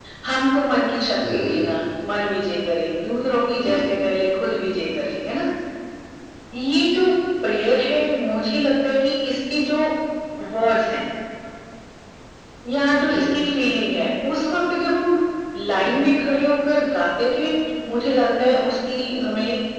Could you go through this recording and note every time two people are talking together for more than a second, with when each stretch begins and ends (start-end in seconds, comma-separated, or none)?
none